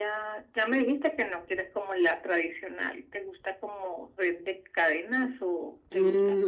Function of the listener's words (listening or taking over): taking over